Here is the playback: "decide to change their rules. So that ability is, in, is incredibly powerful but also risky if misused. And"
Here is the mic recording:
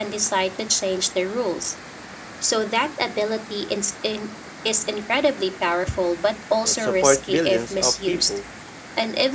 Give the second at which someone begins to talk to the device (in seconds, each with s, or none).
6.6 s